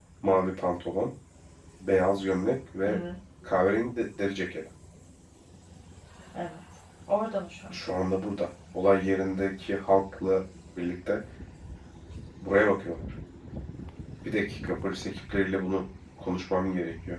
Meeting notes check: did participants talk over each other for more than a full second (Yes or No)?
No